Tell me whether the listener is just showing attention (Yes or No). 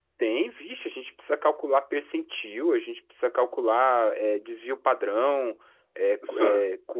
Yes